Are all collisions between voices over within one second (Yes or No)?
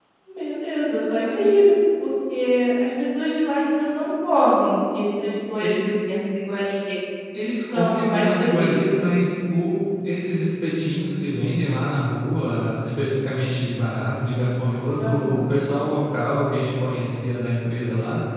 No